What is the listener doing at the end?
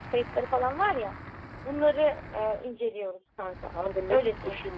taking over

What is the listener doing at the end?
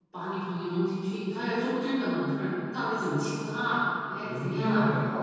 taking over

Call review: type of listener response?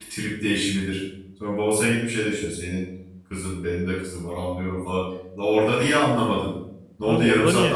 taking over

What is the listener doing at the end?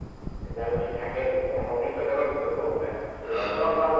listening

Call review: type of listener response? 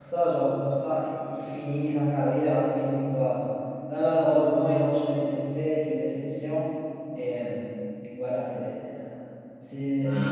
taking over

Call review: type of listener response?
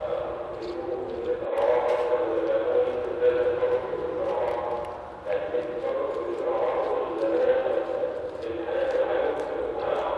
listening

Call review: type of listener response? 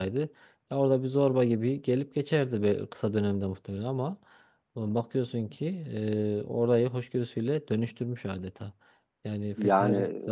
listening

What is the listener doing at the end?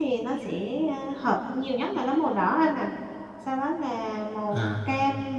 listening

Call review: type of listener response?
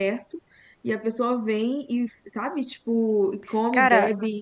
listening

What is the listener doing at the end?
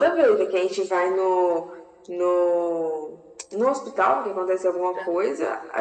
listening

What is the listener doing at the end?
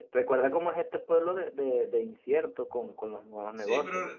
taking over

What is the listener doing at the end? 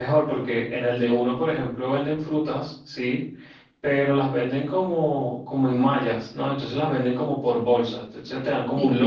listening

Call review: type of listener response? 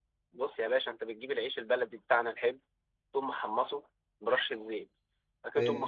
listening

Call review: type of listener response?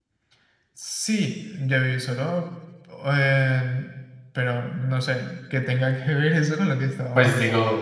taking over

